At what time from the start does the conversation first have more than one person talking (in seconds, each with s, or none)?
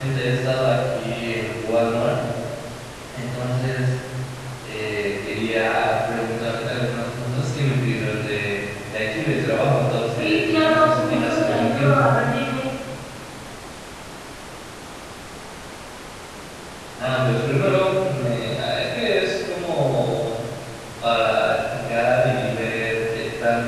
10.1 s